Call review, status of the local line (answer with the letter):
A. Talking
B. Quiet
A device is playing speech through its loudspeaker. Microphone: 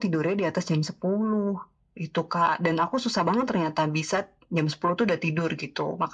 B